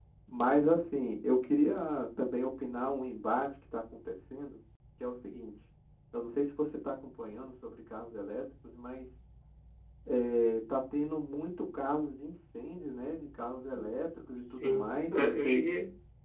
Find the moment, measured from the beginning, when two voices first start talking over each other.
14.3 s

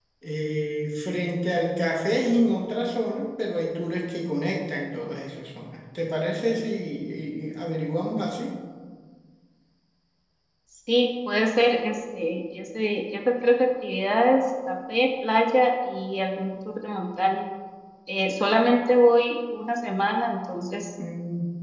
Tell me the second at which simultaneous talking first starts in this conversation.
none

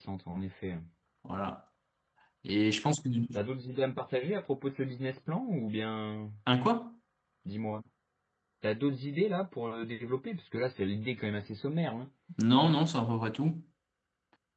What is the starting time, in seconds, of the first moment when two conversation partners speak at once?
none

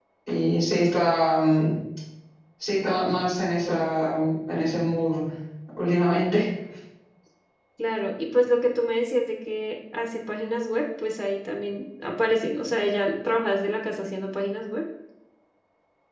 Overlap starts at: none

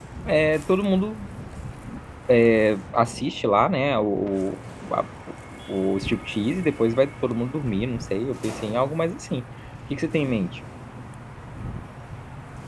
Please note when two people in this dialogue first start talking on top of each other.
none

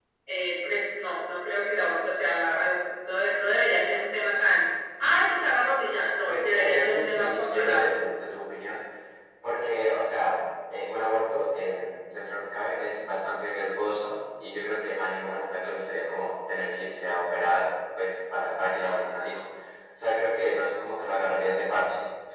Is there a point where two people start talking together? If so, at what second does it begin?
6.3 s

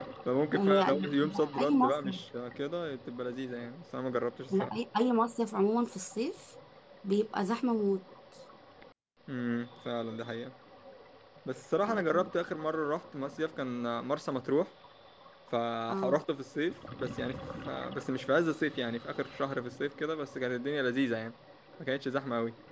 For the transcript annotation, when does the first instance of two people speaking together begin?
0.5 s

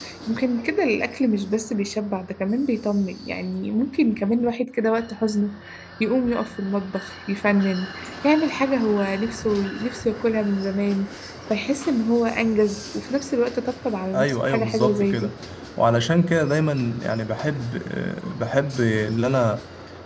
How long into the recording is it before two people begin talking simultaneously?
14.1 s

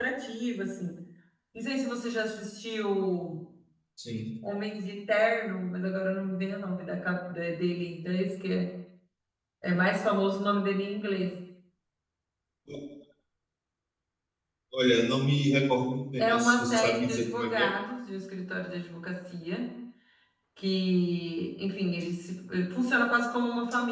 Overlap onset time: 16.2 s

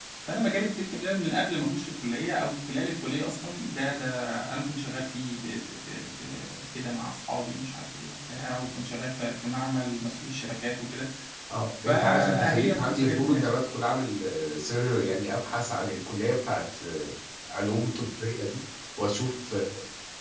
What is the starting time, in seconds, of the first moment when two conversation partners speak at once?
11.8 s

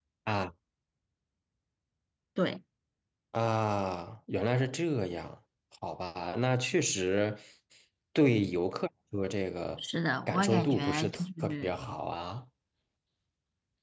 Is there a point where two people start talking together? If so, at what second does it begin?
10.3 s

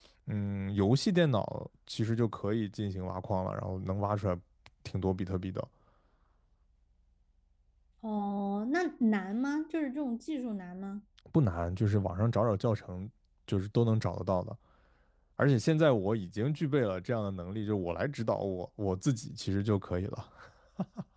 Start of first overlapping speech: none

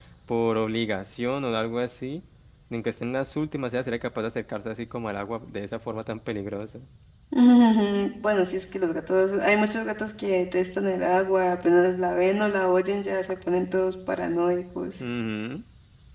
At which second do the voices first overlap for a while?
none

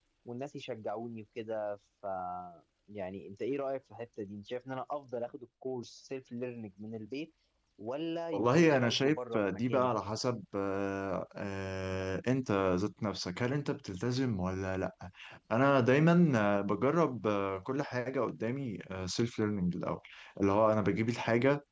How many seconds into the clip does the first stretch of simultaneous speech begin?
8.3 s

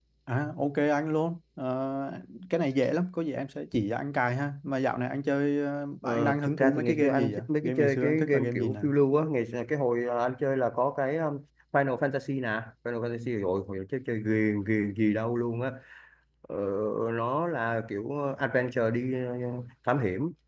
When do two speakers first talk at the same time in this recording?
6.0 s

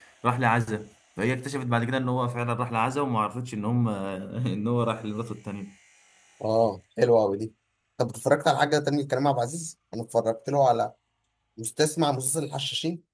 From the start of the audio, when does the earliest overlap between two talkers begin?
none

